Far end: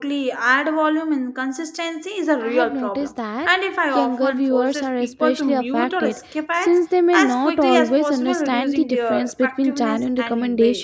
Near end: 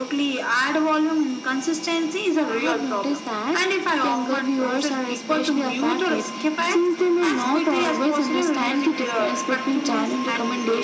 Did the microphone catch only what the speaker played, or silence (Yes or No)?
Yes